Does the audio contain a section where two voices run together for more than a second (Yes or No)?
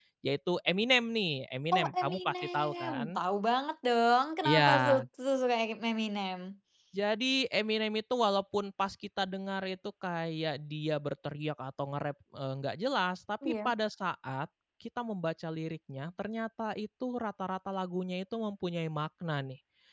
Yes